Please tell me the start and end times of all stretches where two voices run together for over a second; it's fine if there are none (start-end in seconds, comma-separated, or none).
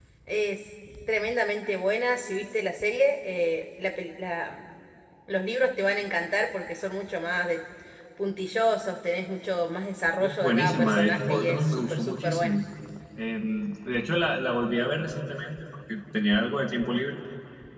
10.2-12.6